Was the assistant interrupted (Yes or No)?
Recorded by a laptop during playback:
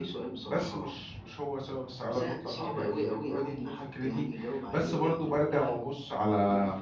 Yes